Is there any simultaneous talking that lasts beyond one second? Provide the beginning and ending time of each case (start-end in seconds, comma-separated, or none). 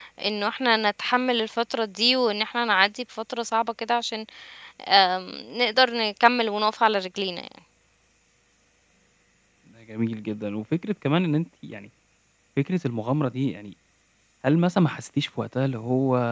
none